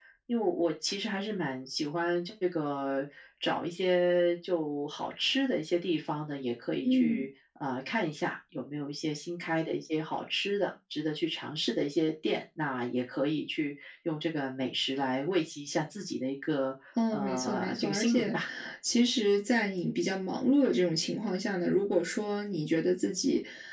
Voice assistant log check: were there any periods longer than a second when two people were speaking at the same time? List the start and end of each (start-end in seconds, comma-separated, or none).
17.1-18.4